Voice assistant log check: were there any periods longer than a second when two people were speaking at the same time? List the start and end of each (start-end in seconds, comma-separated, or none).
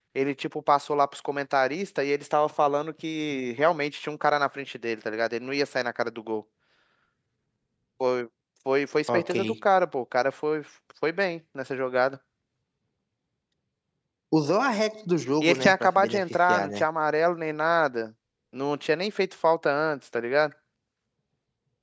15.4-16.8